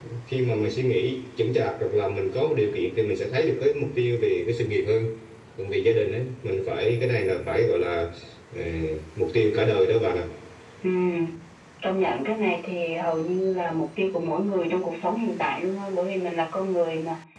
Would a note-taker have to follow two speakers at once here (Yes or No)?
No